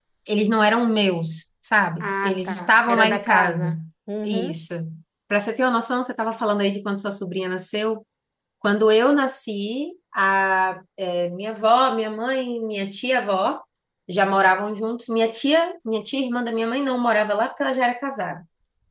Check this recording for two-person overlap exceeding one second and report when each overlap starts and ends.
2.0-3.7

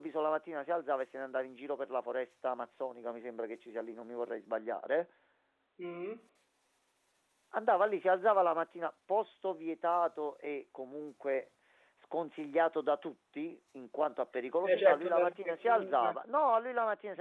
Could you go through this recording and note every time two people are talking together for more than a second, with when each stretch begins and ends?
14.6-16.2

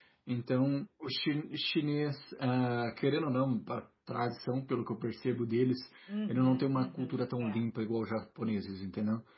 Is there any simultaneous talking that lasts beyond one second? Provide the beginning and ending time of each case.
6.3-7.7

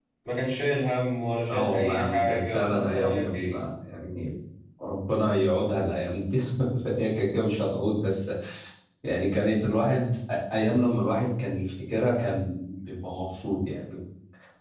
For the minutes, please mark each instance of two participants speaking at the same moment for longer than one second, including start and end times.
1.5-3.6

